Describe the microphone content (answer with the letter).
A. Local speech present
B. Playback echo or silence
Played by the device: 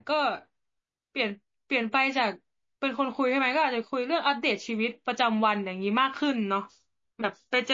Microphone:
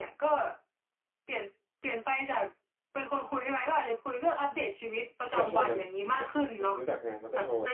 A